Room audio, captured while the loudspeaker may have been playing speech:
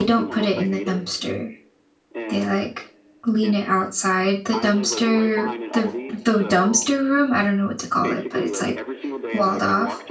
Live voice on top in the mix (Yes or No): Yes